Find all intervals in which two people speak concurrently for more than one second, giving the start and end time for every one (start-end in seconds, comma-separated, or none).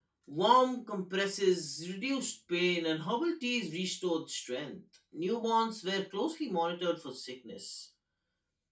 none